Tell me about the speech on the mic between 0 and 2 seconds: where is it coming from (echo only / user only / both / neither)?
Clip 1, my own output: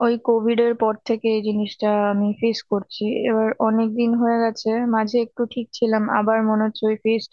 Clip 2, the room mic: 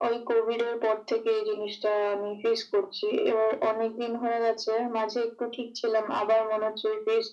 echo only